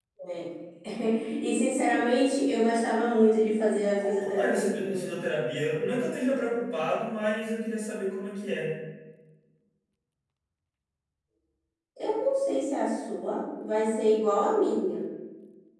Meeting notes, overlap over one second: present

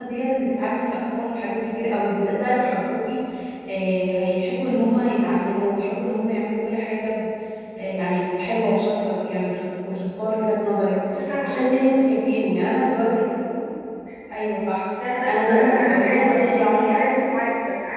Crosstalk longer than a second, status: present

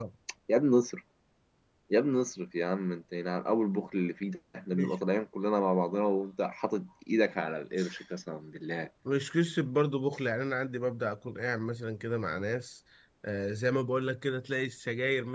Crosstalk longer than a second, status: none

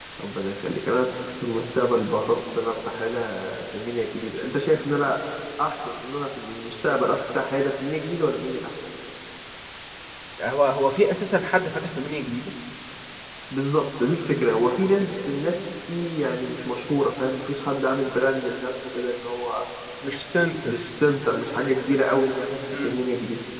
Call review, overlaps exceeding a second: none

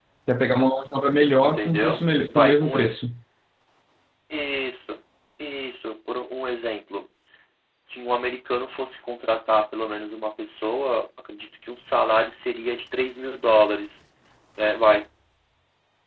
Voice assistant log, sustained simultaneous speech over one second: present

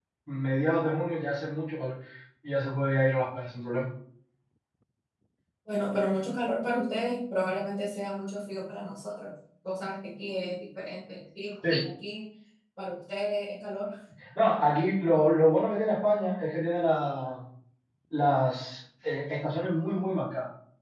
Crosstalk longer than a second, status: none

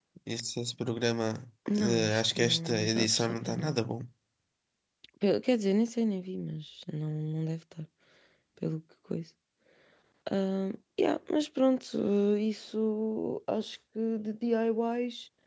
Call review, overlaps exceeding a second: present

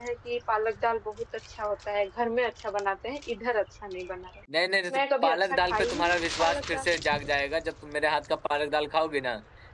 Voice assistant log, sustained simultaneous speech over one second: present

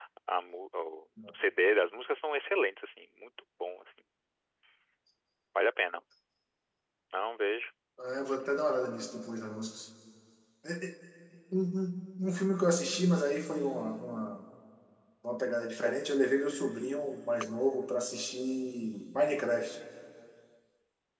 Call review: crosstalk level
none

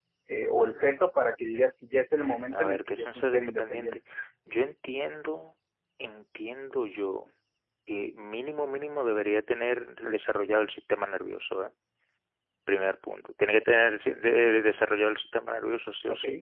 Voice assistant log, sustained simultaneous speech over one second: present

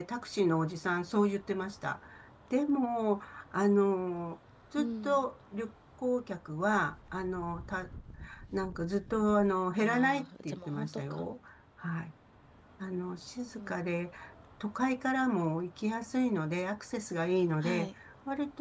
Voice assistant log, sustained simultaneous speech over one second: present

